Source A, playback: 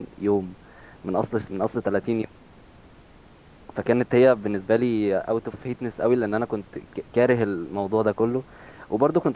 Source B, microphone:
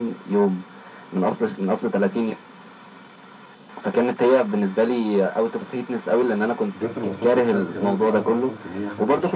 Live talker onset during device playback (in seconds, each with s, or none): 6.7 s